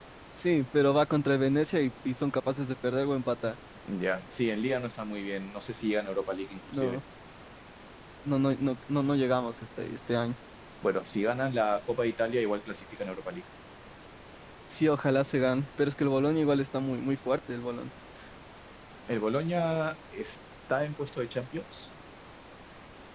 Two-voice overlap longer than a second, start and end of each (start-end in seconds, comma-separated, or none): none